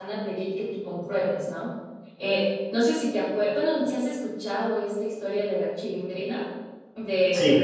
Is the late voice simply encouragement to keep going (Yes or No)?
Yes